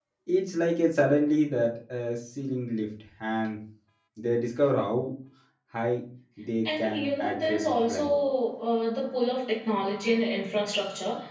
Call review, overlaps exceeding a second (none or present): present